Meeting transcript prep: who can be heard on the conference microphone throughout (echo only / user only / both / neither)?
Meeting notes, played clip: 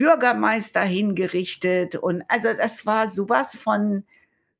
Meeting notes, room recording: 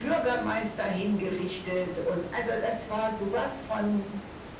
echo only